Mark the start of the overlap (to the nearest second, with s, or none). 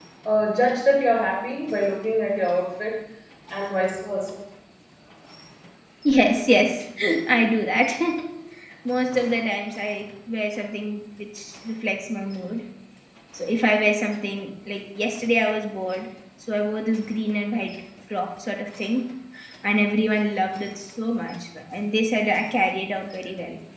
none